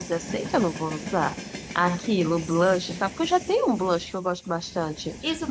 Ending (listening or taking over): taking over